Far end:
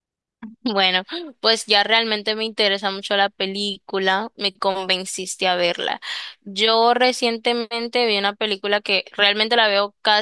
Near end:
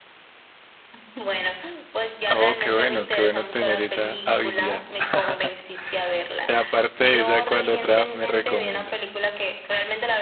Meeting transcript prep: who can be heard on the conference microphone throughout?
both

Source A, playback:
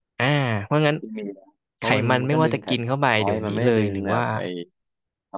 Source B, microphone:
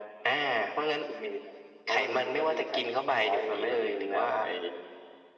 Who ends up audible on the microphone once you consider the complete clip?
echo only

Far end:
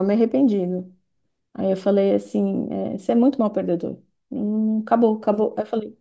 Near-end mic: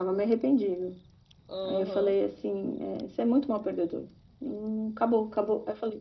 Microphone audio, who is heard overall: both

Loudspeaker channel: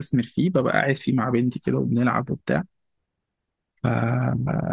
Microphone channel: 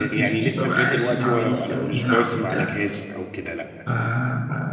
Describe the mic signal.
both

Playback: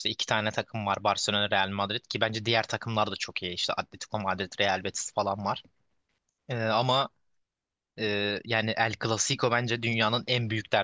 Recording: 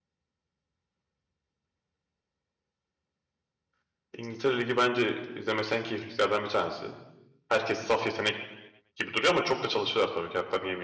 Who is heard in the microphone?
user only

